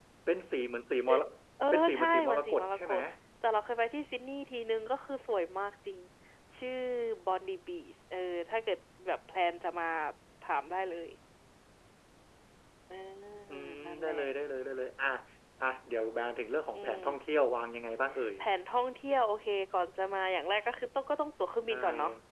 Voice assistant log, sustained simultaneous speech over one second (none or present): present